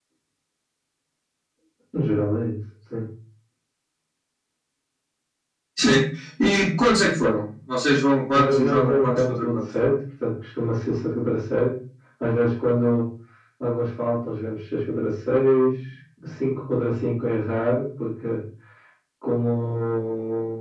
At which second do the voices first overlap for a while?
8.3 s

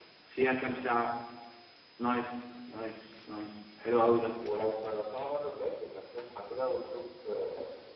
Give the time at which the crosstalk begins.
none

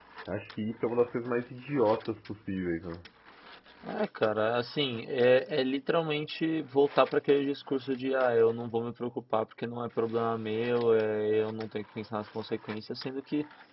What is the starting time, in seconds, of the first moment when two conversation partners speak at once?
none

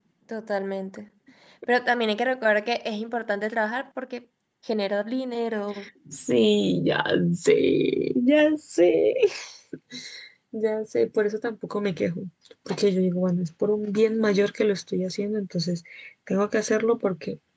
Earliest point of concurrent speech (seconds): none

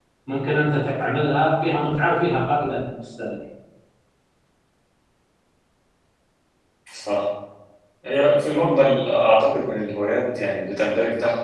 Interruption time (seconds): none

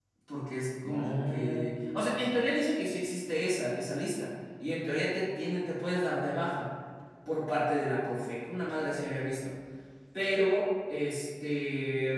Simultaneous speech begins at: 0.8 s

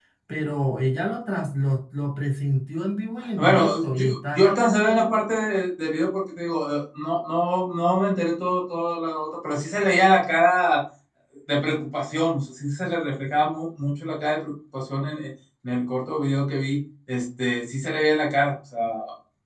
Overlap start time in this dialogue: 3.4 s

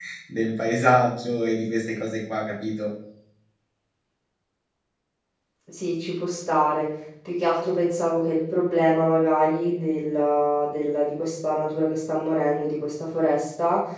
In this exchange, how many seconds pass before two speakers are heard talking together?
none

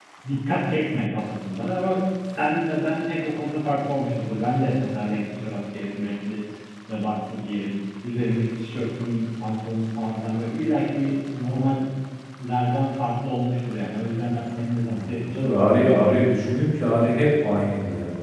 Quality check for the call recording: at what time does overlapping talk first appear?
14.8 s

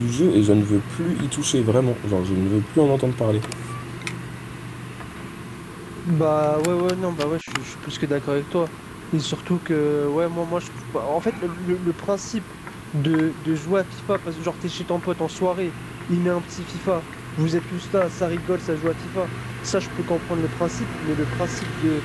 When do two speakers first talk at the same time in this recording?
none

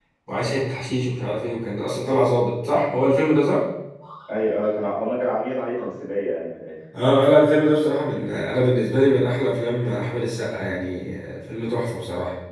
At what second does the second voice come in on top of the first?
none

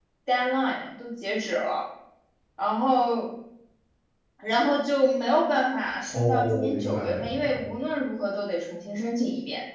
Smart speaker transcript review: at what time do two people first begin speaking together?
6.1 s

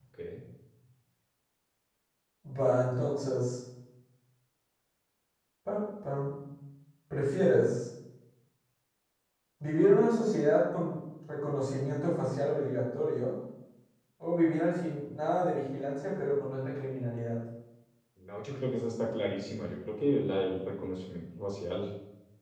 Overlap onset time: none

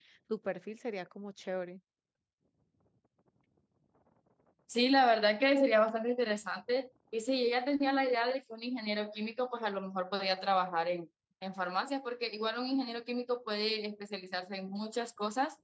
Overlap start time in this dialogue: none

